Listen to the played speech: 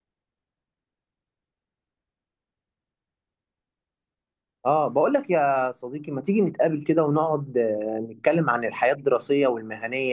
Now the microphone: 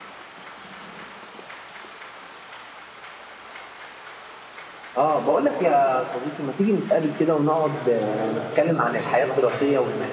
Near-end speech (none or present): present